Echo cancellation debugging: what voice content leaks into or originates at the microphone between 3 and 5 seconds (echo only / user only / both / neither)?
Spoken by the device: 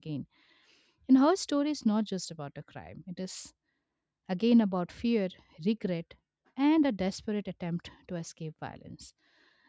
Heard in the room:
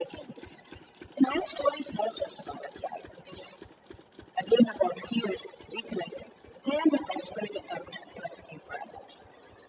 echo only